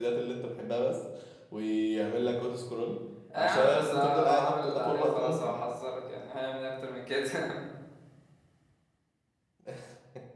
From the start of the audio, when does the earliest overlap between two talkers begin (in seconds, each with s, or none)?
3.3 s